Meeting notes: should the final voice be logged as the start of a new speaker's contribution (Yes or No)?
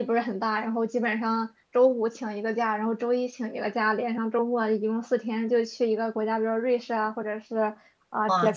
No